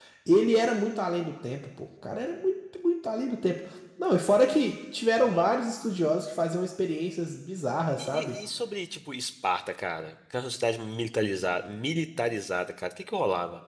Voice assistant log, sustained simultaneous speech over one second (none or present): none